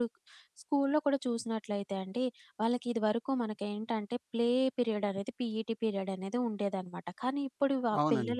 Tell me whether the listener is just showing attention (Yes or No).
Yes